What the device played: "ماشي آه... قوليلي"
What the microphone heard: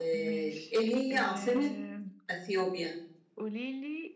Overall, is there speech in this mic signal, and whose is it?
both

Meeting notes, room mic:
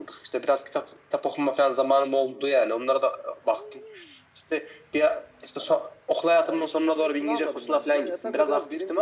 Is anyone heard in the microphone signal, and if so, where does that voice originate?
echo only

